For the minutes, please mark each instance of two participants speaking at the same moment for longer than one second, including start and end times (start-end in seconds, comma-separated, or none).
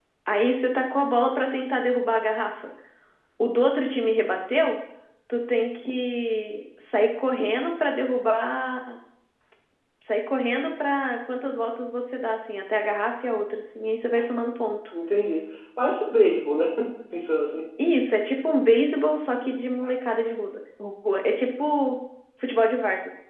none